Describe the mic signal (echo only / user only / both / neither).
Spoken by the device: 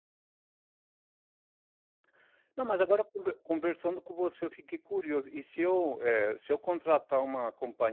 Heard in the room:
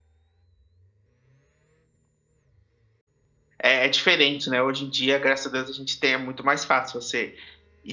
user only